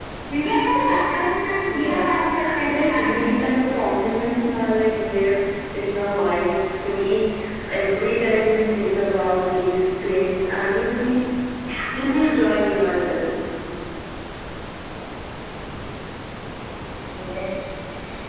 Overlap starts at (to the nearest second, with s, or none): 2 s